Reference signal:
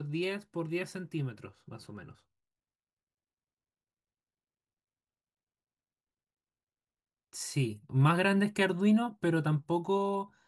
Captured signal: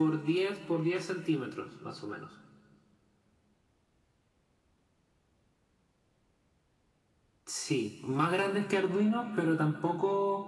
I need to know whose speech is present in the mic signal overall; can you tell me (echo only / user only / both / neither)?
echo only